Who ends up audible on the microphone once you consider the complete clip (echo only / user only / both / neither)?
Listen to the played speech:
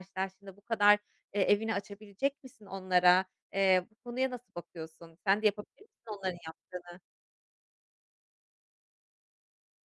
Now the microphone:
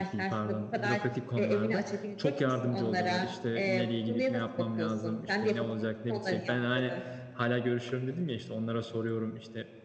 both